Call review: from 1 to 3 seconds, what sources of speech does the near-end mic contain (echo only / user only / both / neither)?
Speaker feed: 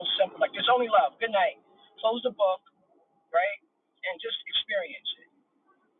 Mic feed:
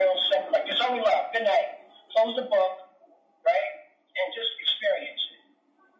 echo only